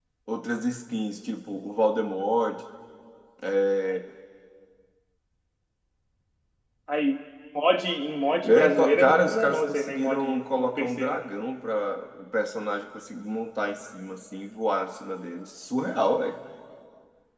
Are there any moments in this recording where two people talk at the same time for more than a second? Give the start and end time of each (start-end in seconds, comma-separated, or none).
8.4-11.2